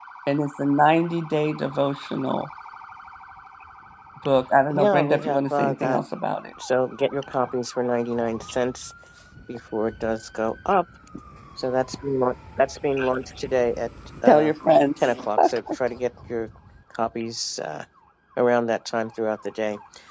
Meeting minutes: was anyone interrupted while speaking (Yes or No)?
Yes